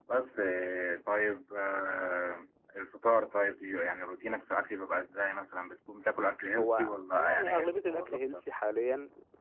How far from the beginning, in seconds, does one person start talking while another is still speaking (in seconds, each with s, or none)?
6.5 s